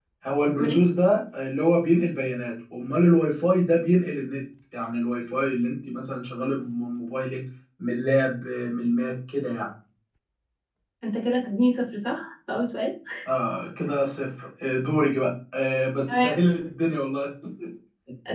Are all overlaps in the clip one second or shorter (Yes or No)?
Yes